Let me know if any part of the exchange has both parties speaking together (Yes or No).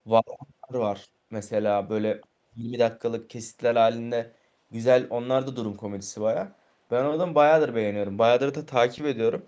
No